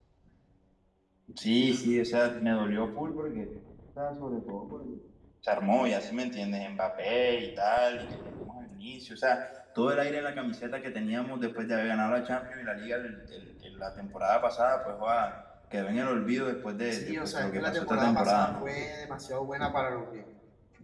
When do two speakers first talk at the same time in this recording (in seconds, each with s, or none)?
16.9 s